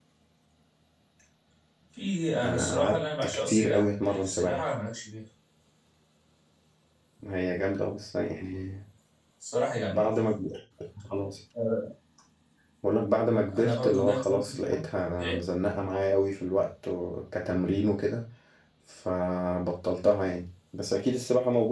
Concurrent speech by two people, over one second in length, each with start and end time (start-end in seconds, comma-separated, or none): 2.4-4.6, 13.6-14.8